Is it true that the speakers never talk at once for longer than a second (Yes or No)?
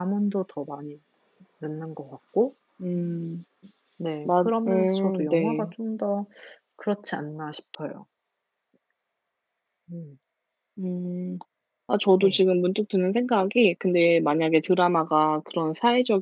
No